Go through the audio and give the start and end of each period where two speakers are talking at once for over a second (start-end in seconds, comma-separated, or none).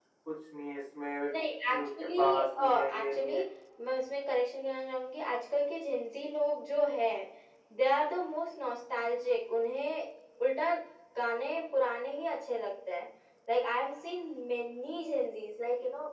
1.7-3.4